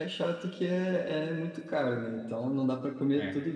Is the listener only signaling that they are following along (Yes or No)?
Yes